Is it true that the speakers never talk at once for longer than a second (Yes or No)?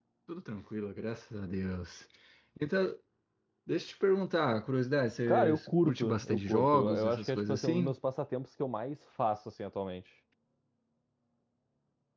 No